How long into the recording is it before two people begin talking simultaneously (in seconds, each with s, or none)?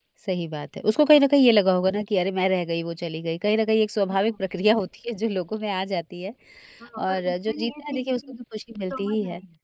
7.0 s